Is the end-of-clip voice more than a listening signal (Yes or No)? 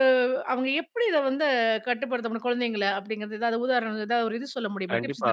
Yes